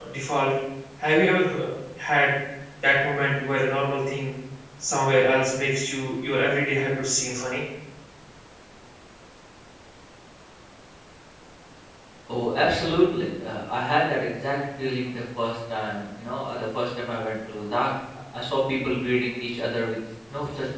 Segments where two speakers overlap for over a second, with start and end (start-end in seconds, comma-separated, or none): none